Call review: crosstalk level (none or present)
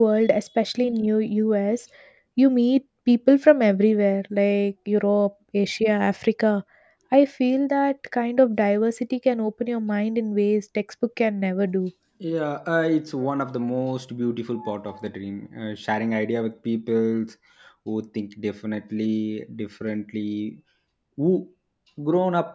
none